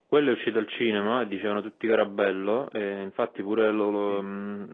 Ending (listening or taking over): listening